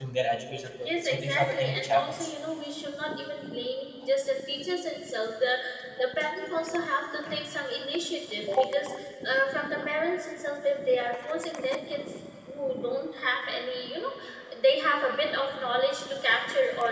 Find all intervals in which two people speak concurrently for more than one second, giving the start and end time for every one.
0.8-2.3

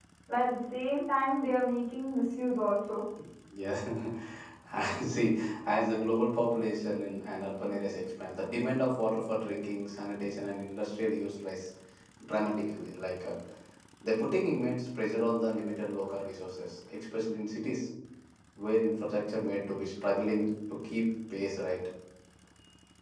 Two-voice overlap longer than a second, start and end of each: none

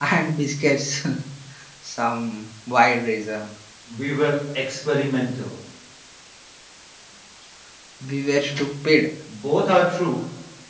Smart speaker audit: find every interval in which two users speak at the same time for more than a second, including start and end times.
none

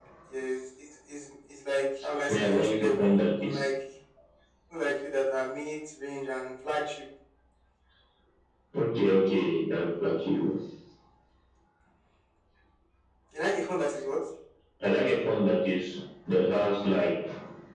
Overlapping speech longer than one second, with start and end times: 2.3-3.6

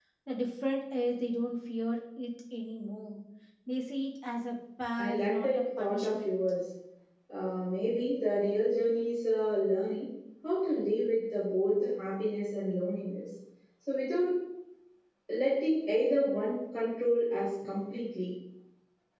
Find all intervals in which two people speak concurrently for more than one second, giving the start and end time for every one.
5.0-6.4

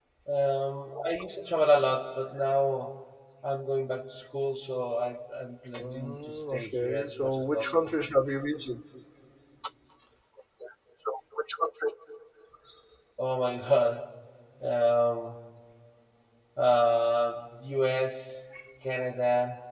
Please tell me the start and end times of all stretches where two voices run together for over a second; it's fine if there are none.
5.7-8.0

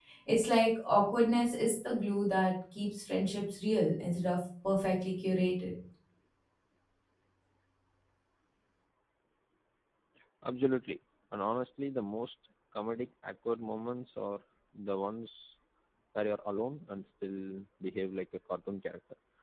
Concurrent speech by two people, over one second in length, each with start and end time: none

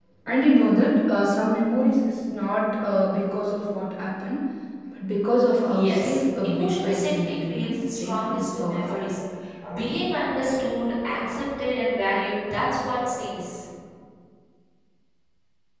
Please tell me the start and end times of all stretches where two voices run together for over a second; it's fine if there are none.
5.7-9.0

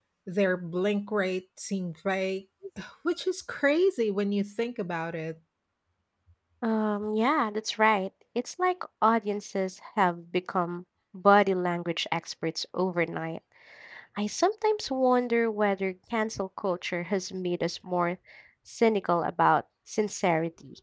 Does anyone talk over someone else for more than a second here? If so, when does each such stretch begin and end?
none

